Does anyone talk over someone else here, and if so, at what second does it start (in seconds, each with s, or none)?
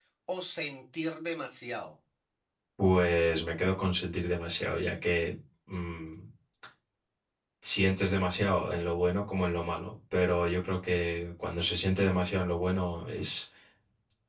none